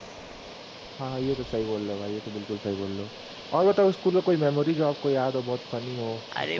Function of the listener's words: taking over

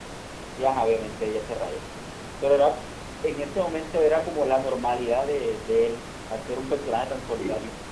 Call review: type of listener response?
taking over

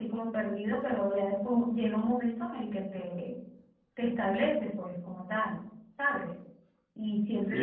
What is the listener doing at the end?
taking over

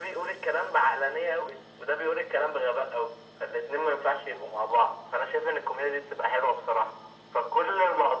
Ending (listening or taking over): listening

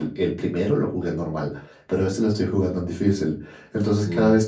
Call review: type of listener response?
listening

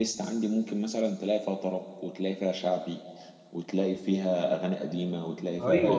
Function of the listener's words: taking over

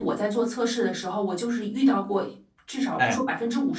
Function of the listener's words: listening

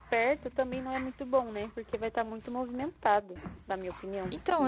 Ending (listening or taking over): taking over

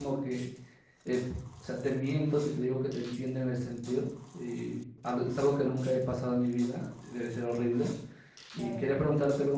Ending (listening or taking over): listening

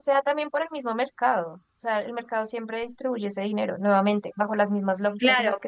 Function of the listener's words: taking over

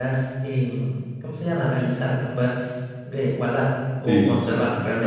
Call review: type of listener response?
taking over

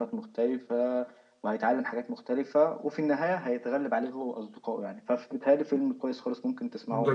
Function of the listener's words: taking over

